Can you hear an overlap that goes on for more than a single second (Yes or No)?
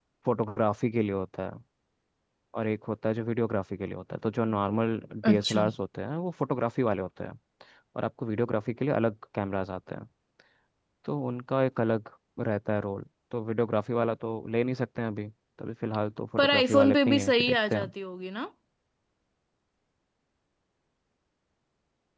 Yes